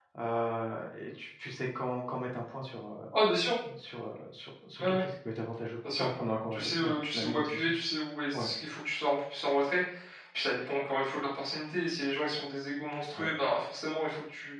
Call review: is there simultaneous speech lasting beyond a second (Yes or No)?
Yes